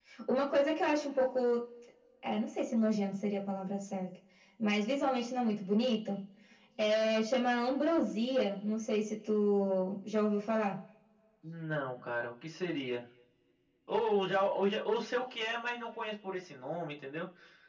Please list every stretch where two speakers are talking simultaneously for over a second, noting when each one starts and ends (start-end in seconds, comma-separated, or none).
none